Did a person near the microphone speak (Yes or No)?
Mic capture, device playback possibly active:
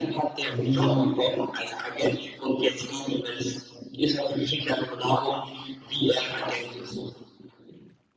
Yes